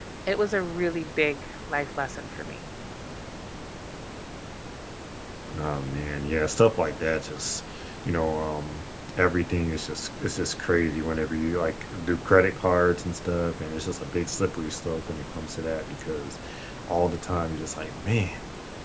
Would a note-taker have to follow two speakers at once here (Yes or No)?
No